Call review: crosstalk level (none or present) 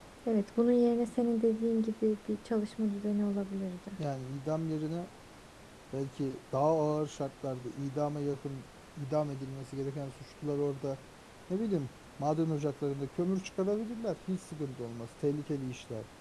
none